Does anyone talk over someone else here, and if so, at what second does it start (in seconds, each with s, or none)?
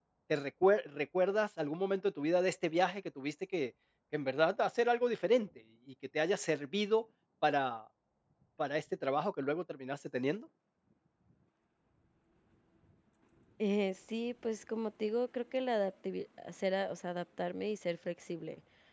none